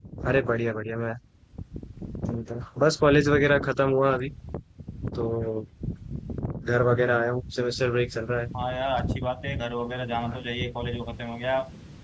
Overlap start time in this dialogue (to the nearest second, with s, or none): none